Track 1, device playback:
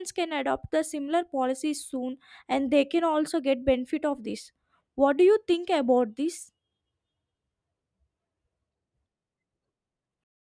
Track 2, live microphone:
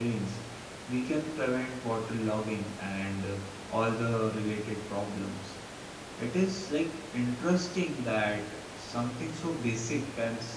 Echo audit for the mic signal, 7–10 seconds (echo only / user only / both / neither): user only